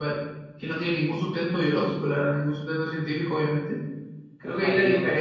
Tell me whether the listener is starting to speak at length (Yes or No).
Yes